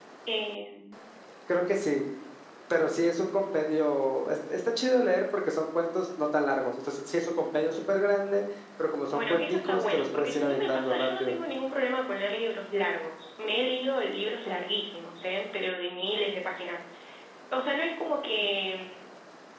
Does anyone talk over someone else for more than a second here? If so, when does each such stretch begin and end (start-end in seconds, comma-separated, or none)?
9.1-11.4